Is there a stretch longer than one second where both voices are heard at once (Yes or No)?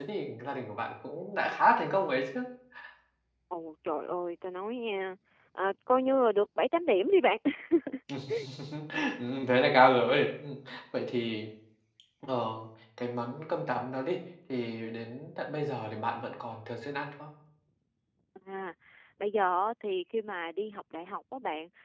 No